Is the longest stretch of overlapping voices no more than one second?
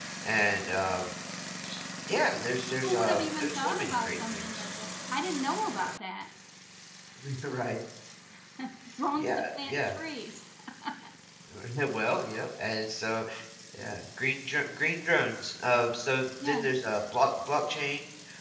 No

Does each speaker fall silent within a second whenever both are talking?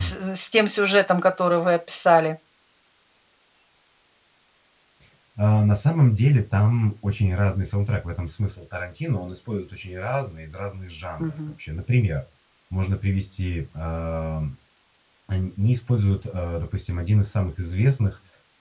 Yes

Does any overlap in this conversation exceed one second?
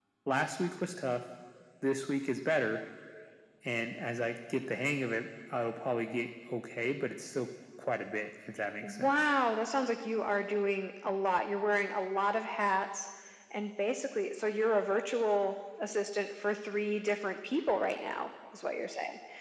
No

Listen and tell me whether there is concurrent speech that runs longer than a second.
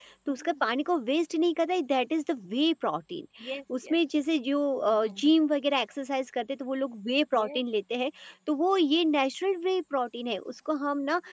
No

